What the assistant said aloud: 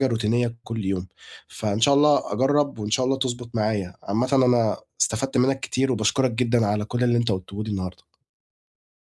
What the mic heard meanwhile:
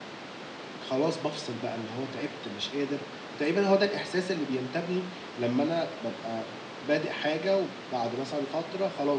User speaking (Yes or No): Yes